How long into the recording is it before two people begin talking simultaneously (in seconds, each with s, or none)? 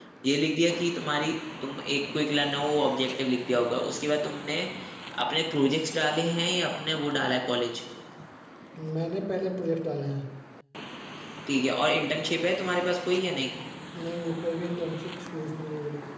none